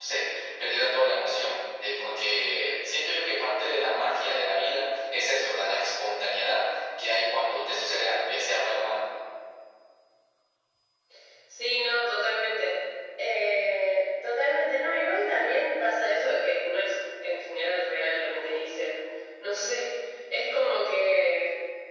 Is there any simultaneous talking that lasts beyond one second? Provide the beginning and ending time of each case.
none

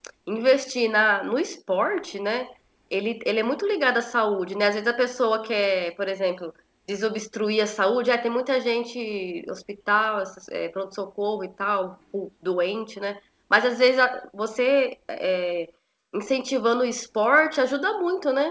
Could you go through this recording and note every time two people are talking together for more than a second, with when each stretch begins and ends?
none

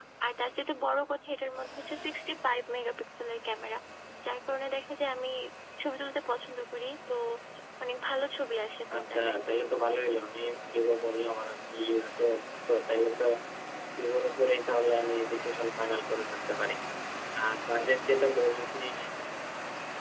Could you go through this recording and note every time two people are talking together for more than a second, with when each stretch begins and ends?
none

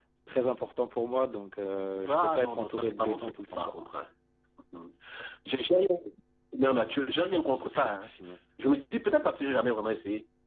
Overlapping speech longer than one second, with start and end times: 2.1-3.7

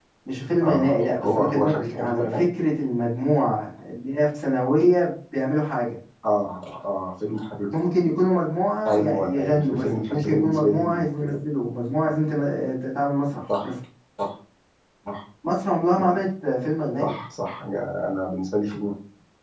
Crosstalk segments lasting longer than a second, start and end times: 0.6-2.5, 8.9-11.1

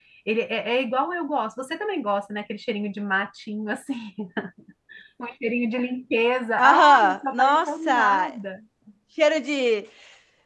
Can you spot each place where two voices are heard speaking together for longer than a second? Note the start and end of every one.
6.6-8.3

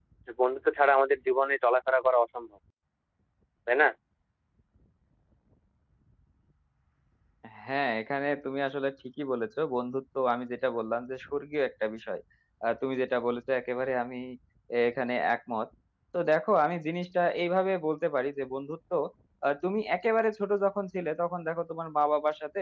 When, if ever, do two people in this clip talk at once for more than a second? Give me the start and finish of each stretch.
none

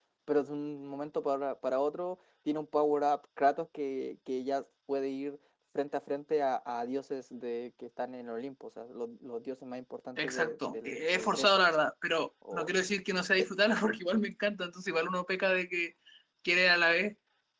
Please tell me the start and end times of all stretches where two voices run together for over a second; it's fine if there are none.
10.2-11.5

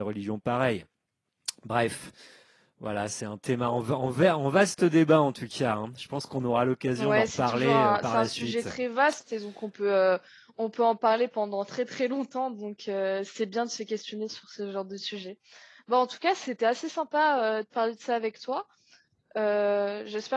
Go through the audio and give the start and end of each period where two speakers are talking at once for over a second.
7.0-8.7

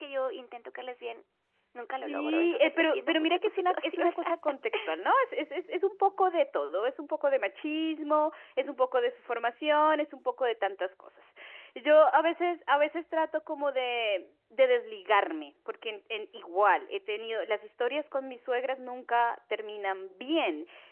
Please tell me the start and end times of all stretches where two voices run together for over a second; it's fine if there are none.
2.0-4.1

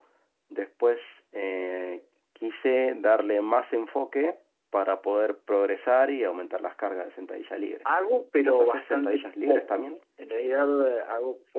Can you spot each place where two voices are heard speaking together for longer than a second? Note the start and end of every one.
8.4-9.8

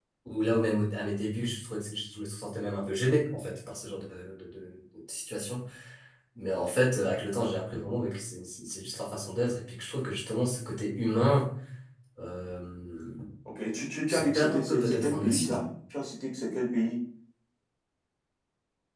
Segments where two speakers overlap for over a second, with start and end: 14.1-15.6

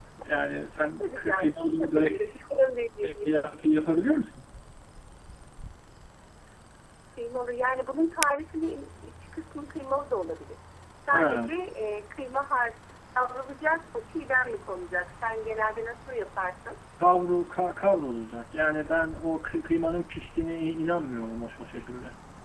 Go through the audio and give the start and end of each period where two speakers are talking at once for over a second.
1.0-2.2

